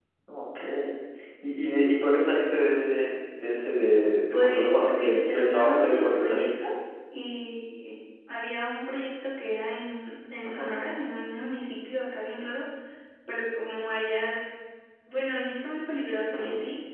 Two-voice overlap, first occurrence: 4.3 s

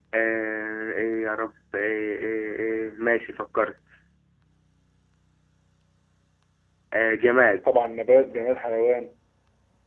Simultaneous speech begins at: none

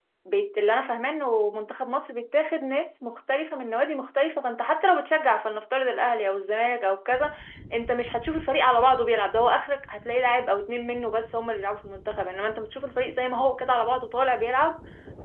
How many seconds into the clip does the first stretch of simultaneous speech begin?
none

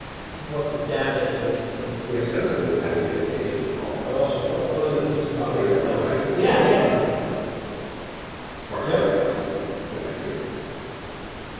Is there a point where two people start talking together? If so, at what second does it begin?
2.1 s

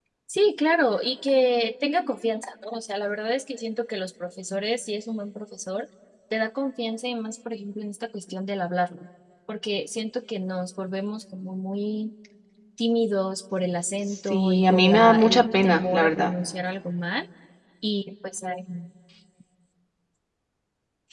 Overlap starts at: 14.3 s

